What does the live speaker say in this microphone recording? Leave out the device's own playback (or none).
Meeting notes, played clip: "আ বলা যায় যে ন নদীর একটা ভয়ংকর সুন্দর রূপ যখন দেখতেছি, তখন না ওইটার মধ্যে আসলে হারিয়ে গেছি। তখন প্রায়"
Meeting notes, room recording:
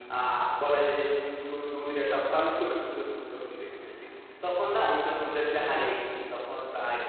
none